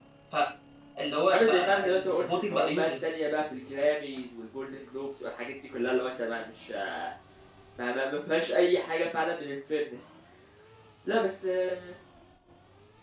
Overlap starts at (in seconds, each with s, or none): 1.3 s